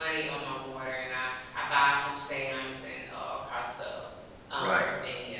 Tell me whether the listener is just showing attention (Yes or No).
No